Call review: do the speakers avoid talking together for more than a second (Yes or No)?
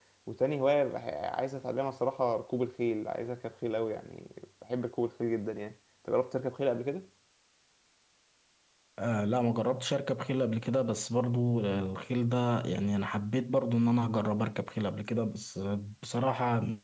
Yes